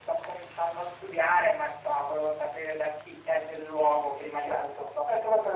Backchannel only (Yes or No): No